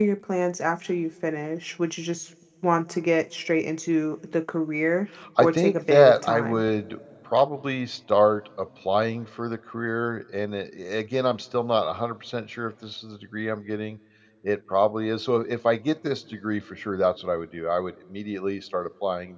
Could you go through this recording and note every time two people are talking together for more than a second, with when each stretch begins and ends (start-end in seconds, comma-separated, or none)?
5.4-6.6